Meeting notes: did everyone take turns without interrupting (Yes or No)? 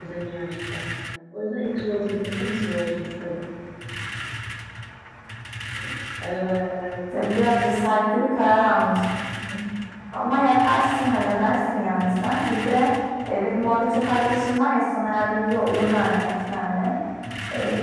Yes